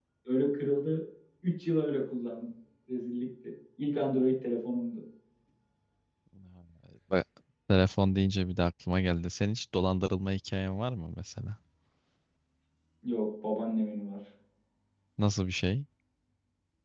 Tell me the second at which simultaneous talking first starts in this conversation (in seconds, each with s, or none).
none